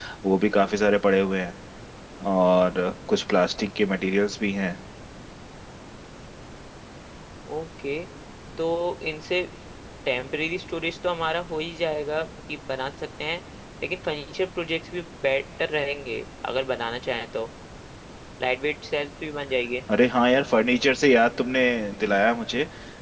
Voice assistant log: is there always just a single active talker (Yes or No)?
Yes